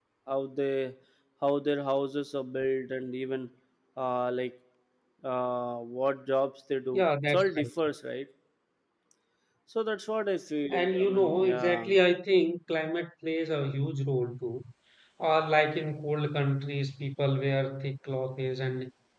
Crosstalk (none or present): present